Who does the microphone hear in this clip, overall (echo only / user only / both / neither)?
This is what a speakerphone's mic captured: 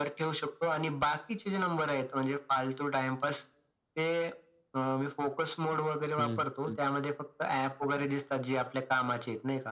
both